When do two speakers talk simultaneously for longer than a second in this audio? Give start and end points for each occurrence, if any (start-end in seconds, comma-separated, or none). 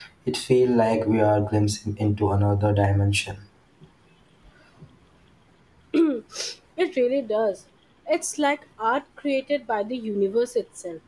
none